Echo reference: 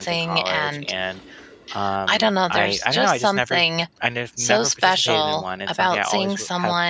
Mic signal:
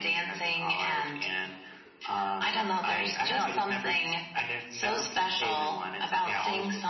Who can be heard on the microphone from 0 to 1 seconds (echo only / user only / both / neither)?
echo only